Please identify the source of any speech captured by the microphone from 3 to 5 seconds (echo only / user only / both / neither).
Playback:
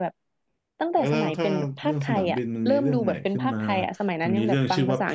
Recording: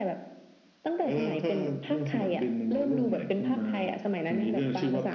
echo only